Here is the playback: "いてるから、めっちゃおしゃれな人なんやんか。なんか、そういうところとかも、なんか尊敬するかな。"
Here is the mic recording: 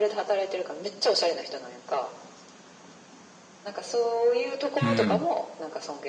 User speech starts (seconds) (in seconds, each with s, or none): 4.8 s